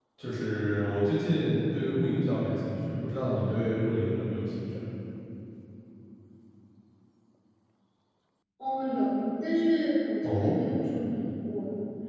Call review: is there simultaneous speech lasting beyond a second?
No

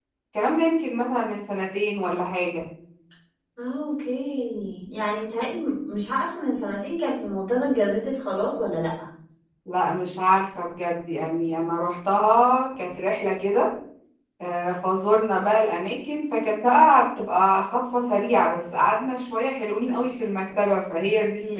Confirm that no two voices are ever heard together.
Yes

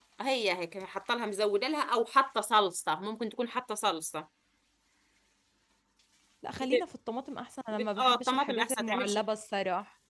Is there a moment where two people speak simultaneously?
Yes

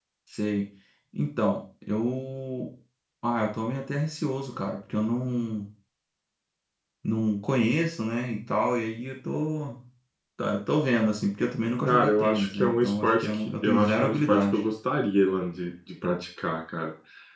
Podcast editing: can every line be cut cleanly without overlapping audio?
No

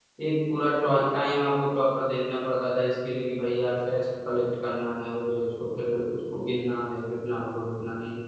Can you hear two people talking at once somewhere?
No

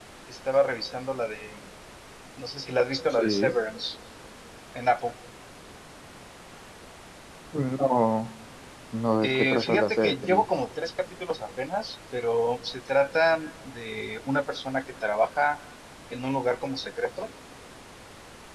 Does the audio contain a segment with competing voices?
Yes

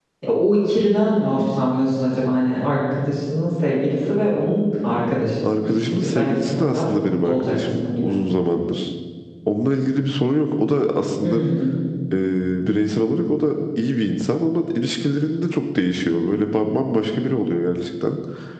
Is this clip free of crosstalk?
No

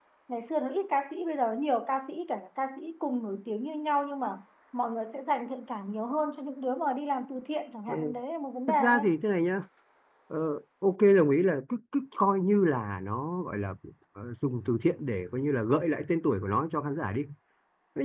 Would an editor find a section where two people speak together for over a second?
No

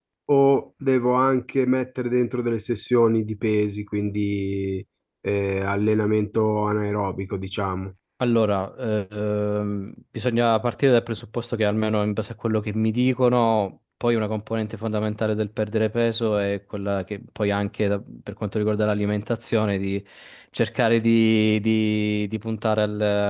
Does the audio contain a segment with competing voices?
No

